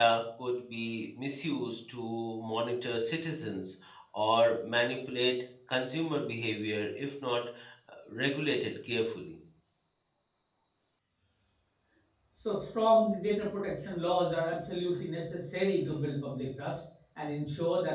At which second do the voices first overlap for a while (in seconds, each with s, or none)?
none